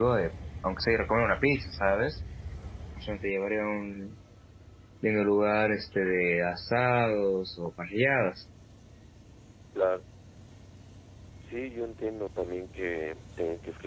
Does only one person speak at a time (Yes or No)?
Yes